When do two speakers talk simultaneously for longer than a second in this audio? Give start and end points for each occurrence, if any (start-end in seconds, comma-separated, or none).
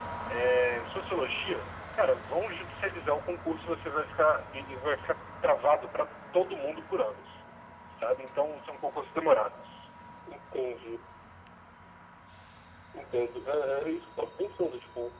none